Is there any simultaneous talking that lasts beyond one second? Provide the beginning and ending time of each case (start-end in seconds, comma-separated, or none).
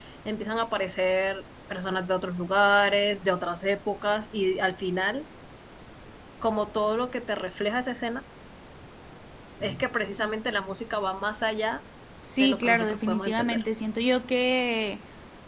12.4-13.6